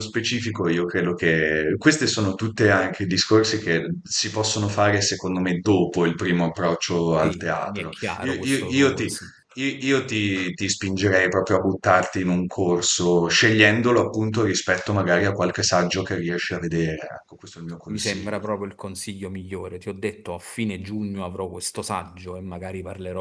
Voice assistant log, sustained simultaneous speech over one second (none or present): present